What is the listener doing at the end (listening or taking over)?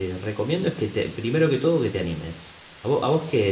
listening